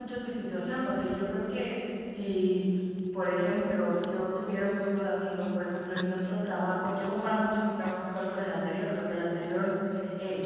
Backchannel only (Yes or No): Yes